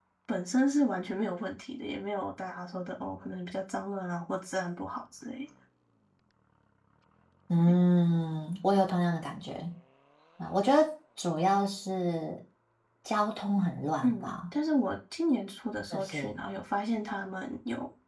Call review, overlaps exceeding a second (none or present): none